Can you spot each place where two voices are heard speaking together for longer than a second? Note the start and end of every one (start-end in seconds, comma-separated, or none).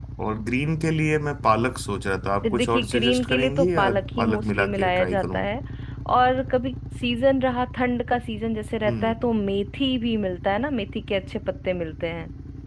2.6-5.4